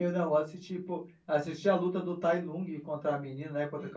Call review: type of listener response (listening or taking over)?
taking over